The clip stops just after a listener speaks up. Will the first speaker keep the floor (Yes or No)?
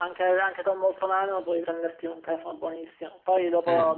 Yes